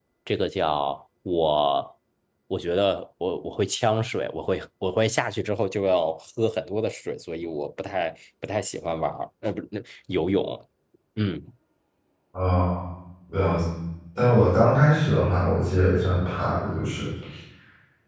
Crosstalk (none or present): none